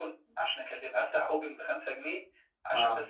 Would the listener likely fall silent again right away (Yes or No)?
Yes